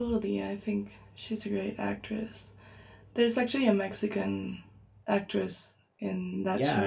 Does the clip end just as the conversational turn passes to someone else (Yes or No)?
Yes